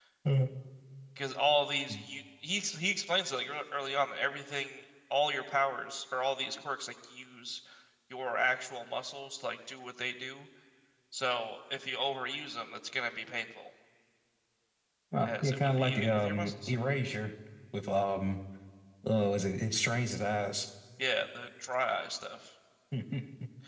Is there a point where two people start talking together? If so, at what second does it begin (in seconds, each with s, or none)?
15.2 s